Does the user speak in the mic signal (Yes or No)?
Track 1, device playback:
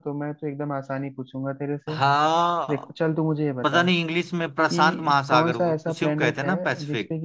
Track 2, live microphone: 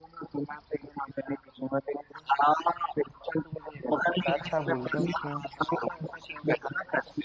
Yes